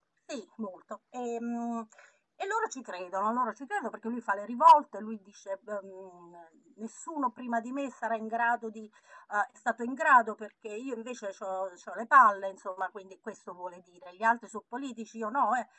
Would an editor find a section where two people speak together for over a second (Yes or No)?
No